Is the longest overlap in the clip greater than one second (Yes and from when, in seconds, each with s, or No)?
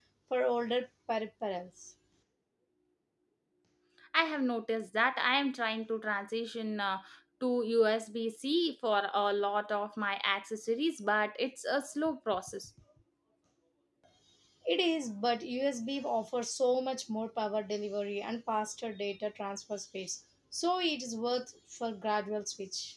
No